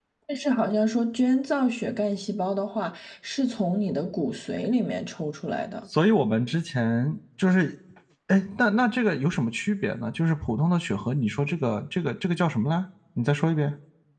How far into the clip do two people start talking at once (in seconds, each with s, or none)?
none